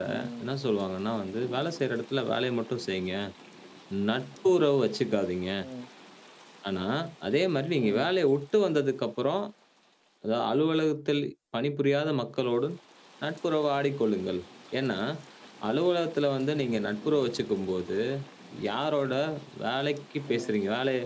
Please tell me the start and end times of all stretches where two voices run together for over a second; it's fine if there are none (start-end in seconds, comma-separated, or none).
none